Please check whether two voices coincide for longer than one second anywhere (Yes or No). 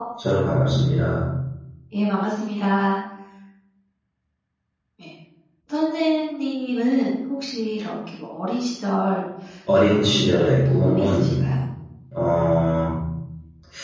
Yes